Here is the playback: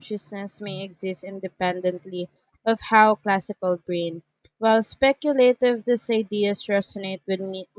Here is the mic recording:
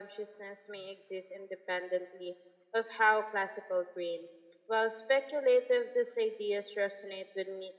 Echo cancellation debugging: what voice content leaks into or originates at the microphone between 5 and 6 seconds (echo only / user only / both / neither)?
echo only